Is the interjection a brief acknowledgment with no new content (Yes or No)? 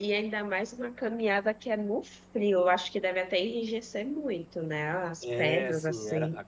No